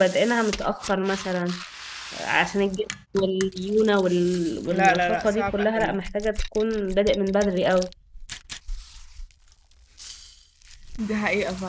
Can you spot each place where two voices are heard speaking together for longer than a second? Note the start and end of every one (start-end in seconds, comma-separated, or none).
4.7-6.0